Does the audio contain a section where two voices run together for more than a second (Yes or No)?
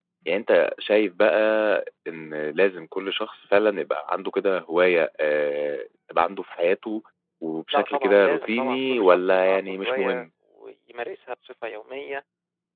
Yes